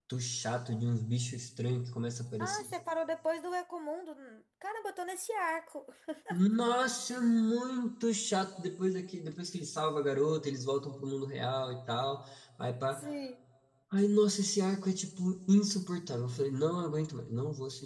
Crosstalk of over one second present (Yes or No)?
No